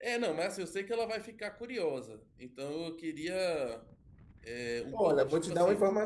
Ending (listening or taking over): taking over